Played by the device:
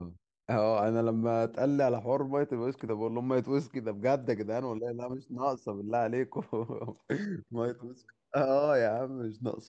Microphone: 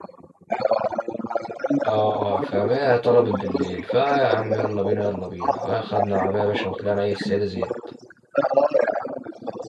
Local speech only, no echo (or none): اه اه فاهم هي طلبت بالليل فيا عم يلا بينا يلا بينا خدنا العربية يا باشا وطلعنا ايه السيدة زينب